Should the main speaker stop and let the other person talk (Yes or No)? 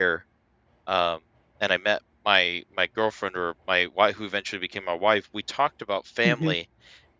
No